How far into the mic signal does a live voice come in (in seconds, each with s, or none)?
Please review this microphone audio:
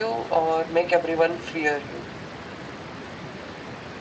none